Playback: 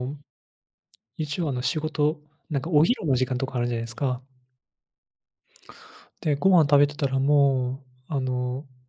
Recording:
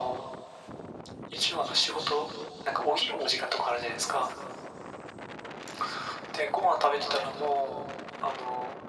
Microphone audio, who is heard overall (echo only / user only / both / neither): echo only